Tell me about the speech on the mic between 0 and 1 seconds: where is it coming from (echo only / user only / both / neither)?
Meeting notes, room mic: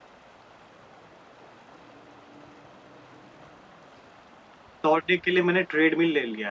neither